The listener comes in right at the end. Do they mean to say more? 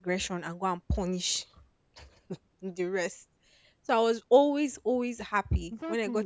Yes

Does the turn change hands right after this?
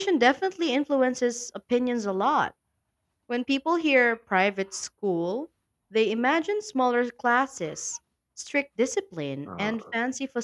No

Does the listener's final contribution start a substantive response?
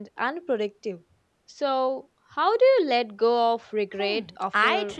Yes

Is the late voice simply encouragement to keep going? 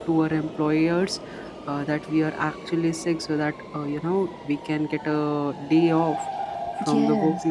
Yes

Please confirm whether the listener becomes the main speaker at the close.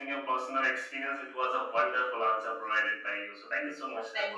Yes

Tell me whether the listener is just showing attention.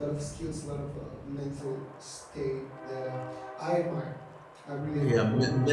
No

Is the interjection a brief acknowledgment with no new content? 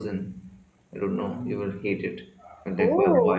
No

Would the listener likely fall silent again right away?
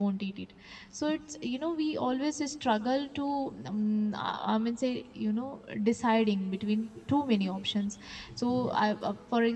Yes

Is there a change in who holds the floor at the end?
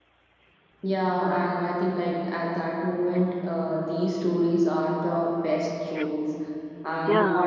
No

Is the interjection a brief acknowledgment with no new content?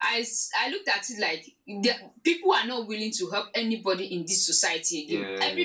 Yes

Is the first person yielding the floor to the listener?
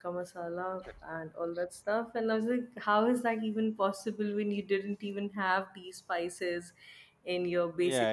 Yes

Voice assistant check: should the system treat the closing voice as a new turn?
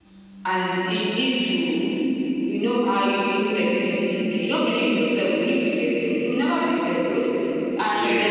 No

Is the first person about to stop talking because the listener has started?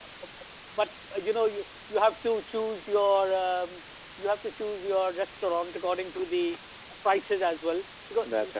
No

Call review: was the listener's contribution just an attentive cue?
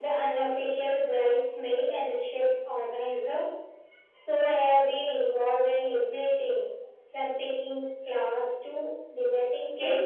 No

